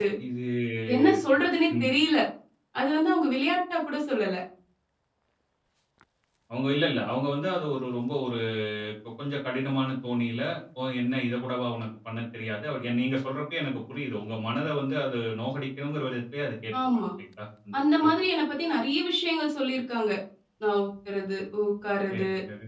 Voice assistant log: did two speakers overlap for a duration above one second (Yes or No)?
No